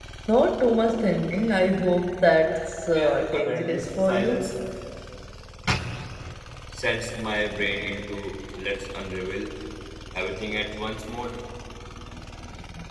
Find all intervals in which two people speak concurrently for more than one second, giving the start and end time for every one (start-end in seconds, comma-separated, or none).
2.9-4.4